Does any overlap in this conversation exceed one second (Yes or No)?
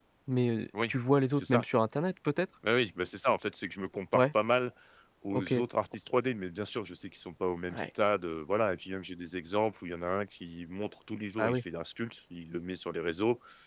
No